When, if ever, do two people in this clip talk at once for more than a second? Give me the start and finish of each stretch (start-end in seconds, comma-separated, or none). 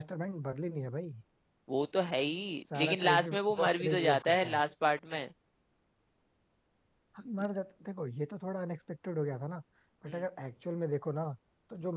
2.8-4.6